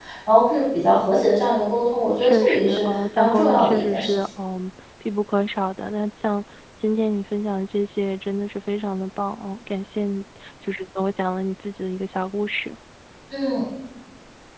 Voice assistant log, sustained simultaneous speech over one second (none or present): present